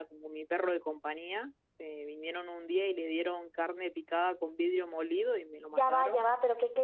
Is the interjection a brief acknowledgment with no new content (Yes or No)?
No